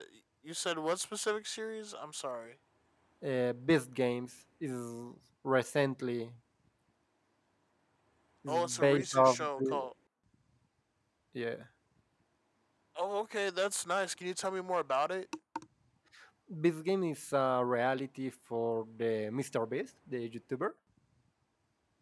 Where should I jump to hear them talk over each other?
8.5 s

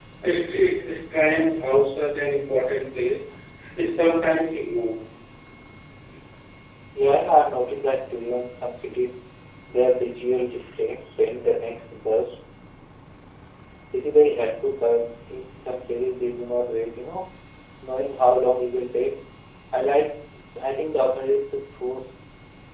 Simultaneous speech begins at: none

